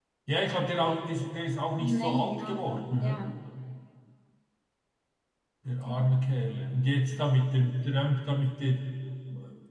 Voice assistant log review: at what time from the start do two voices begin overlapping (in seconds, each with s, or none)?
1.8 s